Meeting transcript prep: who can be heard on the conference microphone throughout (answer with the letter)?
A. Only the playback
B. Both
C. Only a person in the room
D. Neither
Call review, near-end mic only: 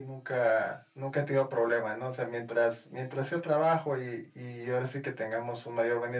A